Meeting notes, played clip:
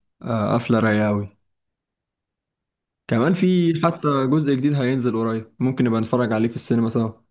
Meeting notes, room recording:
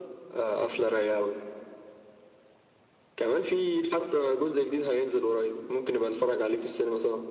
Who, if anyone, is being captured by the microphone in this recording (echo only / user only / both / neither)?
echo only